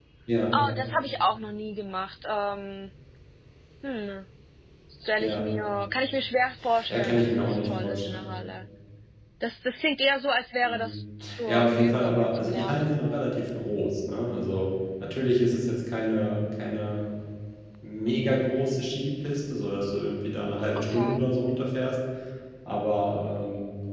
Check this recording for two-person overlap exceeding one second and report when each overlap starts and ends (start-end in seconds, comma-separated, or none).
6.9-8.3, 11.5-13.0